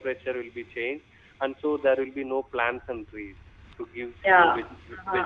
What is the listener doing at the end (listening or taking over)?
taking over